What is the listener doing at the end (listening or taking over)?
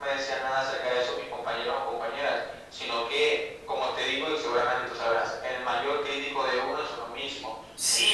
taking over